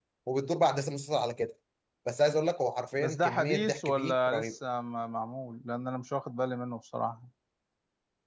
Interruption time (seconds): 3.0 s

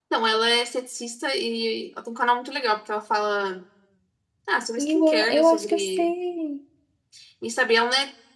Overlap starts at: 4.8 s

